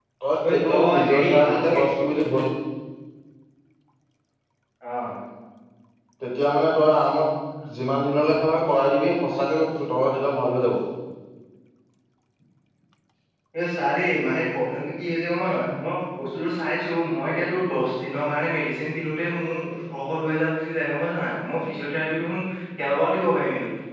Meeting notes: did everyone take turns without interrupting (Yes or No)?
No